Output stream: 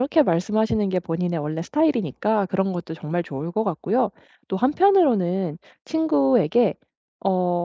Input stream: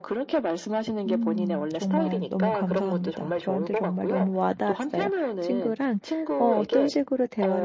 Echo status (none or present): present